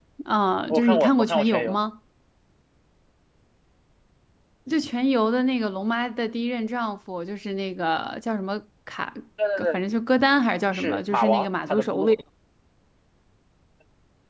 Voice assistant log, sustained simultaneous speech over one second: present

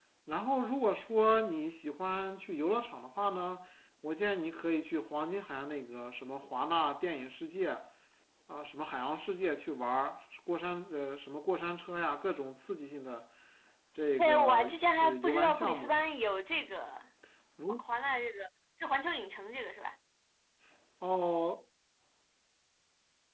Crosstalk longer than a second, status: present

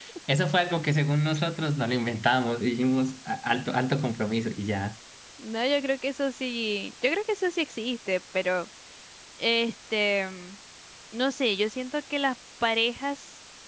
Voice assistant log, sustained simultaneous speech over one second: none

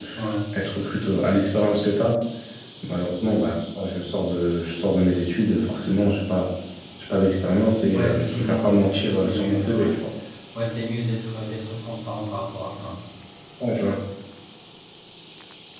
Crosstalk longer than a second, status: present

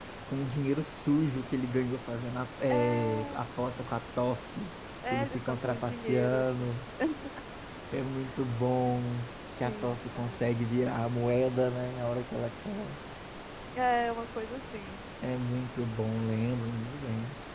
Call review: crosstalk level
present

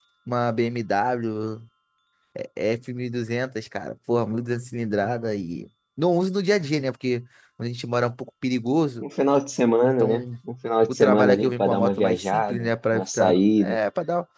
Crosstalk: present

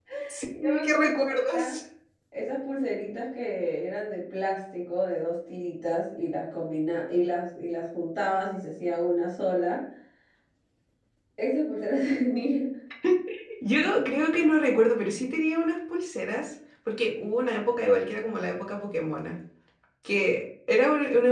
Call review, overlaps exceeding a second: present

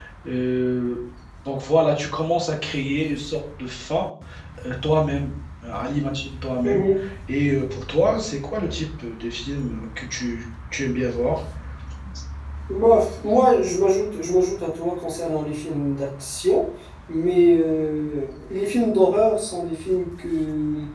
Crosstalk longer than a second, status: none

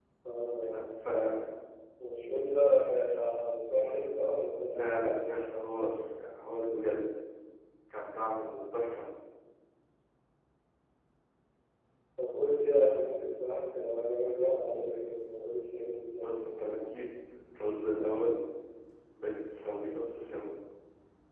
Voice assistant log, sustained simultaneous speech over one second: present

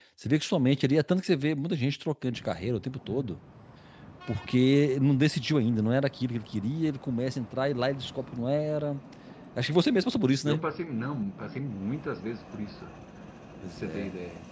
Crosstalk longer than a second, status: none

